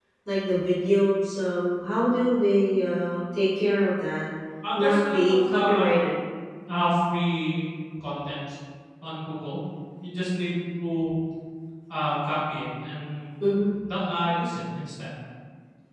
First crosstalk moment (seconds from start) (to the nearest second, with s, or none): 5 s